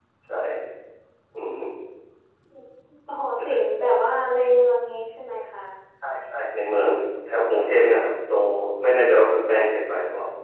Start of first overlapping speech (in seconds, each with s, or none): none